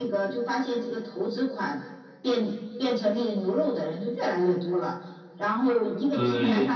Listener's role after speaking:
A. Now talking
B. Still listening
B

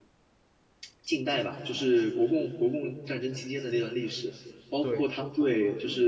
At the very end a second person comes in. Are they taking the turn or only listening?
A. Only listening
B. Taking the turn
A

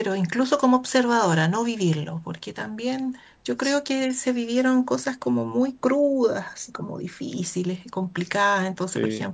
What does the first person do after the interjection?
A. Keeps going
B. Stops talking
A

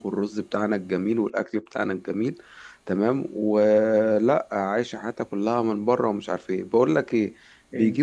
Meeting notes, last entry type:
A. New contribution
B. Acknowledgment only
B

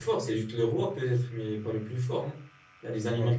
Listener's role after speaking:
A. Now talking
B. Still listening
B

